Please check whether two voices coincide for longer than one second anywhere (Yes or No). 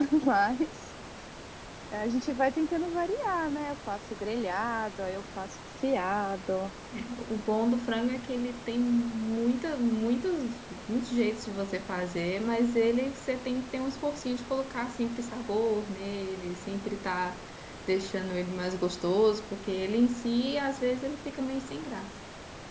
No